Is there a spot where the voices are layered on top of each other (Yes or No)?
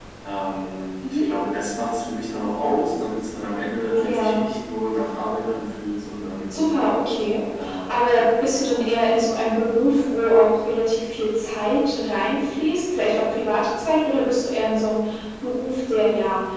Yes